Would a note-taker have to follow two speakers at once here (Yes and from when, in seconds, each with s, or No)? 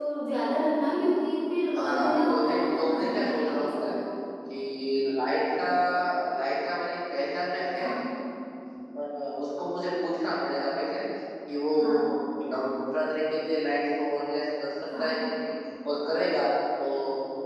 Yes, from 1.8 s